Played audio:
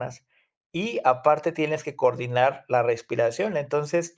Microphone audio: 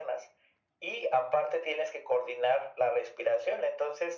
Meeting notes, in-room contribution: none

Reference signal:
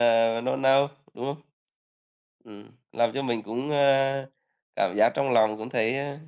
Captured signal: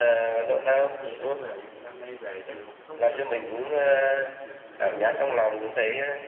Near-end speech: present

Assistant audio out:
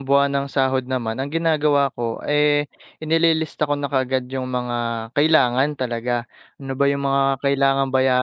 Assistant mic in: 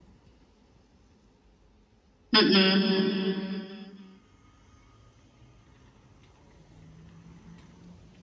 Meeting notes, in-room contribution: present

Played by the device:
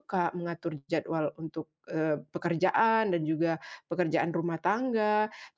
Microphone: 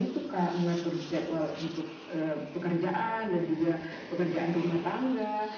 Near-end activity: none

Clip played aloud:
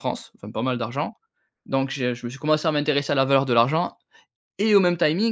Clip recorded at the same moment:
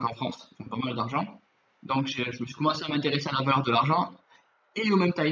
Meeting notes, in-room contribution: none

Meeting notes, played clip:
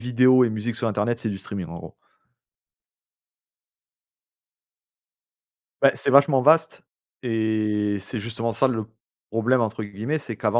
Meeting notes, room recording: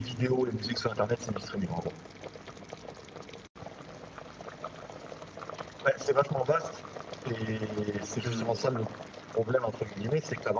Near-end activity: present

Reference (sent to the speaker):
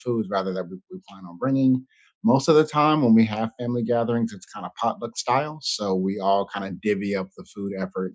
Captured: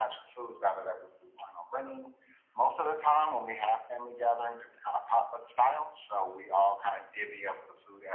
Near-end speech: none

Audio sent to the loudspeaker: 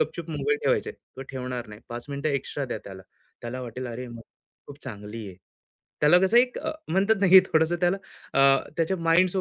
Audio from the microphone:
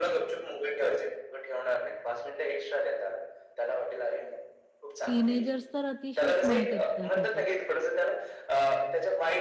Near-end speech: present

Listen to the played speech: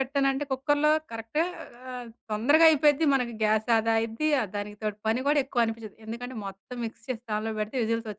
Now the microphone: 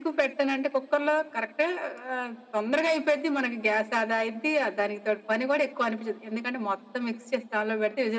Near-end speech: none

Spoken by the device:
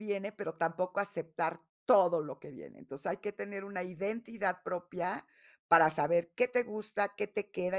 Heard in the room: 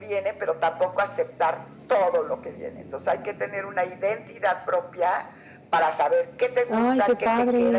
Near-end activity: present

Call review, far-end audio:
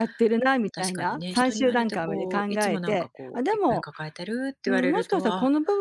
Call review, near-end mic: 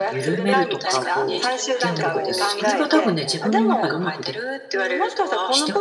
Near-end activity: present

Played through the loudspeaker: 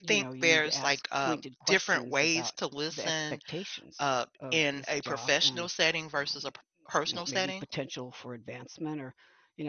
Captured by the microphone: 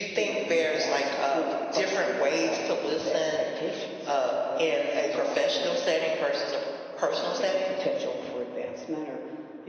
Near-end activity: none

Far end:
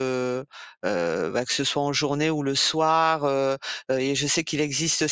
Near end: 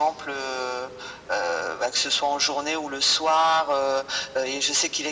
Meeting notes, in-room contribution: none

